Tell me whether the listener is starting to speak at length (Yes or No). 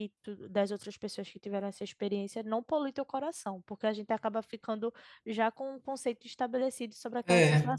No